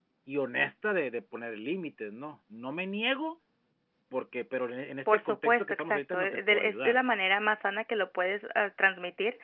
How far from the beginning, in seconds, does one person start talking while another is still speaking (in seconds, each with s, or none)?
5.1 s